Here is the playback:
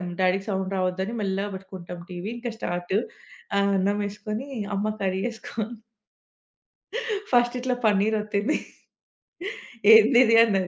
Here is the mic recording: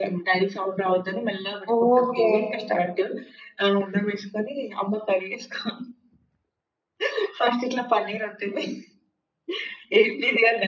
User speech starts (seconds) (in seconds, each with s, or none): 1.8 s